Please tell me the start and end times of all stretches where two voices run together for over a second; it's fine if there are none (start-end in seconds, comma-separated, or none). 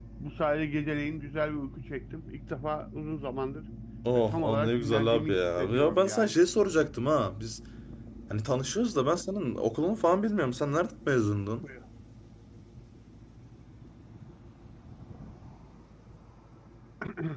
4.3-6.3